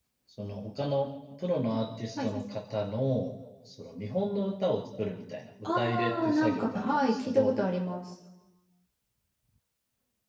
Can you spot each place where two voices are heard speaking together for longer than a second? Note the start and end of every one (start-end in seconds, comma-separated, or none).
5.8-7.5